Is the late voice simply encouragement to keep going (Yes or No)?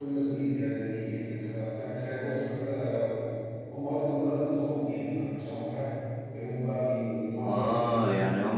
No